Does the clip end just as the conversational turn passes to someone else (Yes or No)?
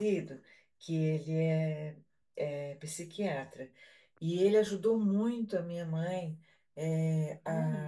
No